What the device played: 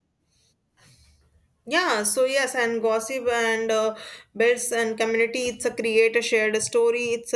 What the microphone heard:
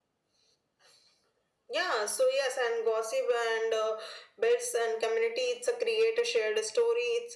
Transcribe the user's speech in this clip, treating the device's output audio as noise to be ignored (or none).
none